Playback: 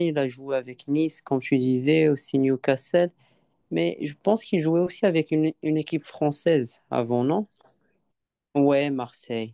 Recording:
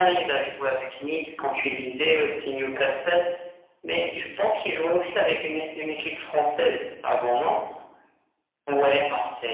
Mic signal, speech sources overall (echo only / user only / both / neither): echo only